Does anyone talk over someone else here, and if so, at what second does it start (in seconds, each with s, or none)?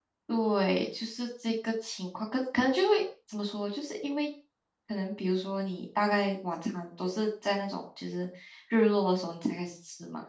none